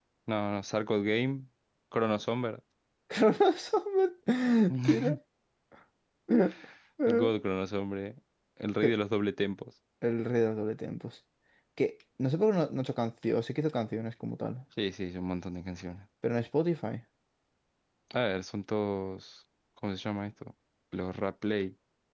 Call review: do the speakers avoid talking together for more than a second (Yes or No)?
Yes